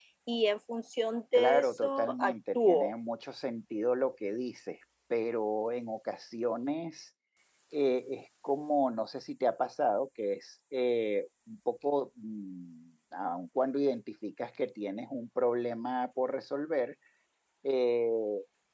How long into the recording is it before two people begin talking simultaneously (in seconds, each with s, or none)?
1.4 s